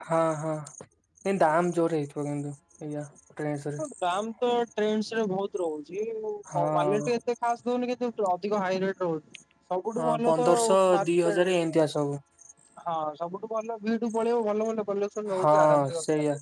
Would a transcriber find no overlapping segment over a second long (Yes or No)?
No